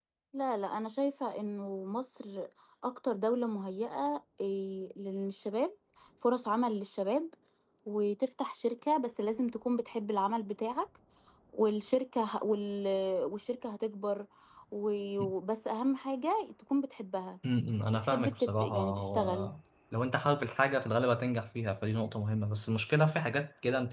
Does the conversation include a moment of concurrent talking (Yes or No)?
Yes